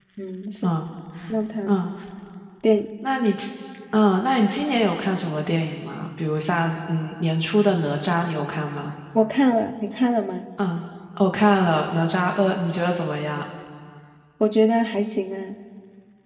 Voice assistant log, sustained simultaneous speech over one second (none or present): none